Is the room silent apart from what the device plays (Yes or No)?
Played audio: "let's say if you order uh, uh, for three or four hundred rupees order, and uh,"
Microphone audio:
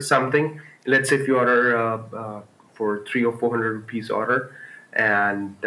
Yes